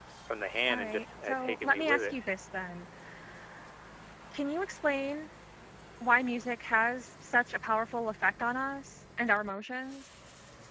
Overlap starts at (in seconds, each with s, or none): 0.7 s